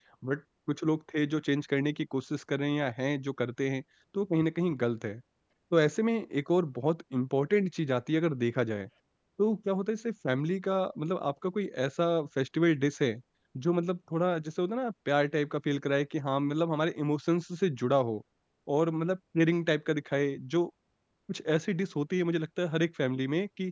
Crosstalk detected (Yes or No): No